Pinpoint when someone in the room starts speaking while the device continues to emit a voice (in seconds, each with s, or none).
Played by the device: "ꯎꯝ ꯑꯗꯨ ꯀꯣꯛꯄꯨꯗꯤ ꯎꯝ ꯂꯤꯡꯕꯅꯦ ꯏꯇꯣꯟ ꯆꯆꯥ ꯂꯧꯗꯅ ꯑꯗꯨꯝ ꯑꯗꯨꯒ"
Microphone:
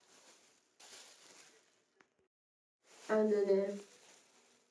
3.1 s